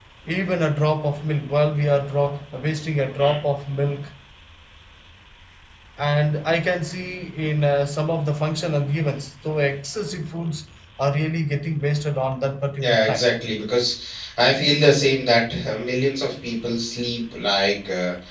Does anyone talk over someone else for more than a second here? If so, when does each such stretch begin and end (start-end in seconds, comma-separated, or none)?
none